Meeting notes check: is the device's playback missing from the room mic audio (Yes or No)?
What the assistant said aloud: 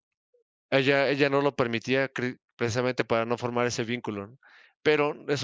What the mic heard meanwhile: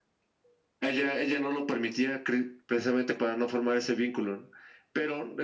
No